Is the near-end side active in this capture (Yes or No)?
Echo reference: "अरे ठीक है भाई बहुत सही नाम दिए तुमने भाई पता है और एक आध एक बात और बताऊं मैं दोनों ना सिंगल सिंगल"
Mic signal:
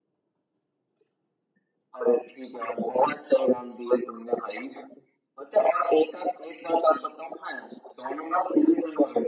No